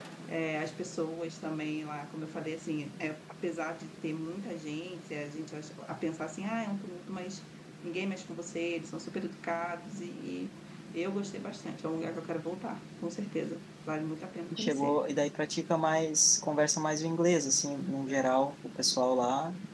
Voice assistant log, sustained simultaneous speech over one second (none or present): none